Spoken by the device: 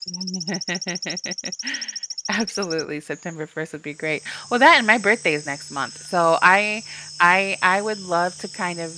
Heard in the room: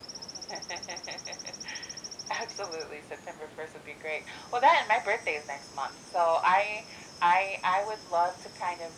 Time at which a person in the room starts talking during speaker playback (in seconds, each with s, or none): none